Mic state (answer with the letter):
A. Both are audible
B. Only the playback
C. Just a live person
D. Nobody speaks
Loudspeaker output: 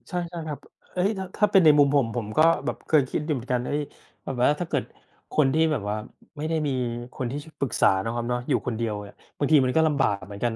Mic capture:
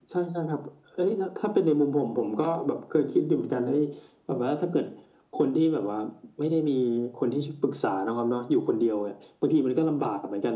B